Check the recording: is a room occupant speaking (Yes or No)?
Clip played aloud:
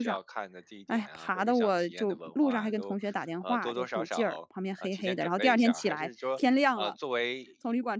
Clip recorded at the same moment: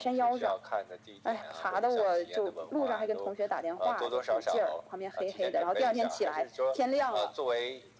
No